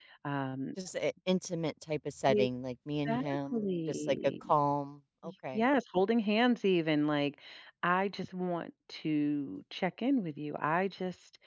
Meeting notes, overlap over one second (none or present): present